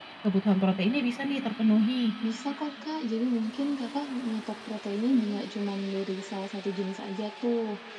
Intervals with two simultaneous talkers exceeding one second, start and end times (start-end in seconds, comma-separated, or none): none